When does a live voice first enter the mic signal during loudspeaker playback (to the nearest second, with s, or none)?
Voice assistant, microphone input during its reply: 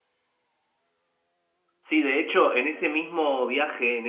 2 s